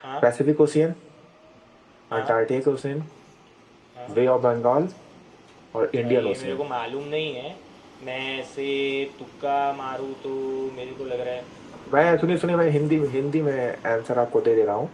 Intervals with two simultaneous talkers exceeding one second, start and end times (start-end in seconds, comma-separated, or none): none